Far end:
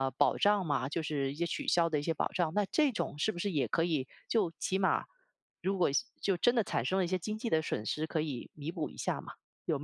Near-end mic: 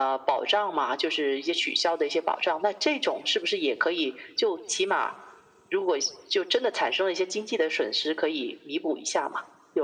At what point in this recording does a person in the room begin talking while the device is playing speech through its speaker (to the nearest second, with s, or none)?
none